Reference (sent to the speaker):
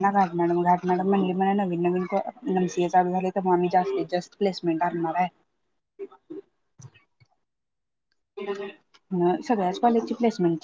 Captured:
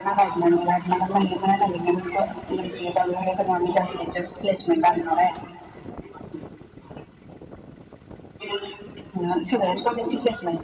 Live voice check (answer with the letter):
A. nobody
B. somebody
A